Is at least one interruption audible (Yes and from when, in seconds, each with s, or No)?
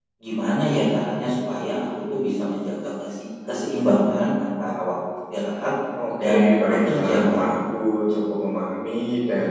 Yes, from 6.2 s